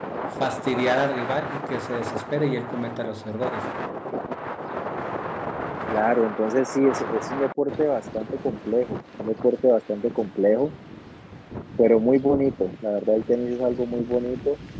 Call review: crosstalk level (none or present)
none